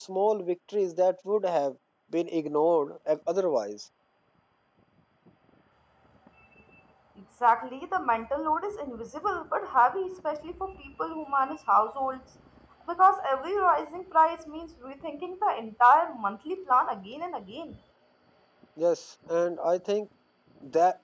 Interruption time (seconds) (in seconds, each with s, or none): none